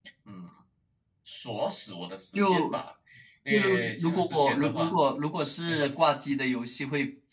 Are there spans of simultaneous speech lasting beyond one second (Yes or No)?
Yes